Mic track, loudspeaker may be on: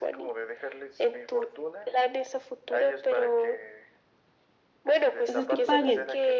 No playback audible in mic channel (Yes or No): No